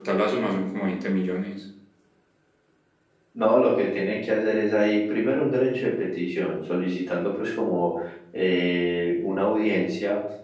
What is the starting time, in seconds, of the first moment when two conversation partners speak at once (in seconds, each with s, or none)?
none